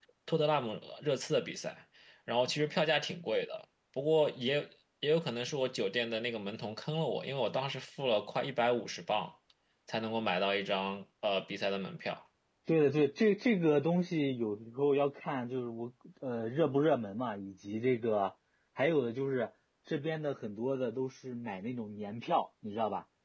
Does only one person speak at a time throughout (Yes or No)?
Yes